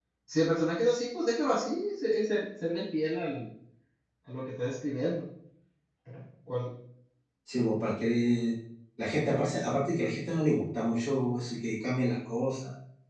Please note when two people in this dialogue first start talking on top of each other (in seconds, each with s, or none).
none